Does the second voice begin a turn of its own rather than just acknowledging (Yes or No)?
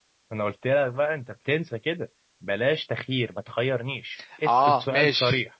Yes